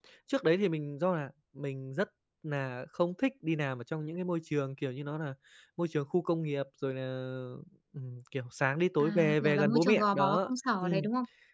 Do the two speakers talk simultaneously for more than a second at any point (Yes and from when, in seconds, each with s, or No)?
Yes, from 9.0 s